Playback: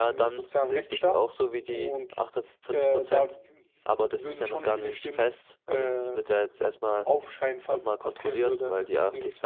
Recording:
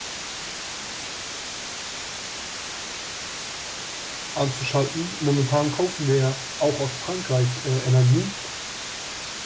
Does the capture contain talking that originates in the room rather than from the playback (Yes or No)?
Yes